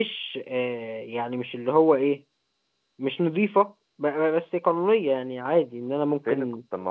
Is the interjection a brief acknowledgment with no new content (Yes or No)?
No